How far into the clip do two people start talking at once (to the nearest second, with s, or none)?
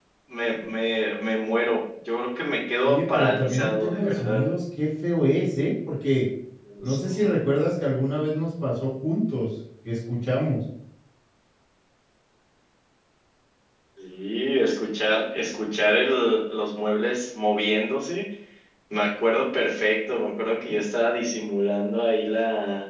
3 s